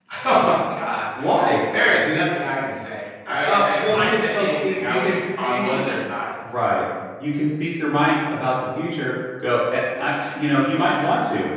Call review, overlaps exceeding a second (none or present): present